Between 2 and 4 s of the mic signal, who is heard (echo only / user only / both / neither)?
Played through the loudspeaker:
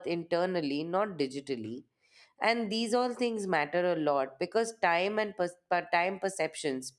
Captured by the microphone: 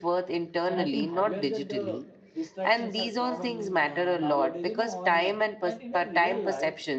both